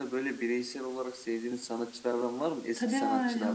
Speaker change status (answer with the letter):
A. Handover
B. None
A